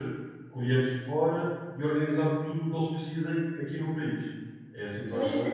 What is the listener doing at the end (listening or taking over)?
taking over